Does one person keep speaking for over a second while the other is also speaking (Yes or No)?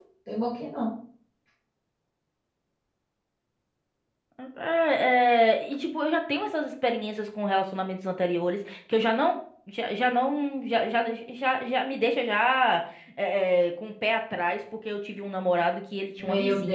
No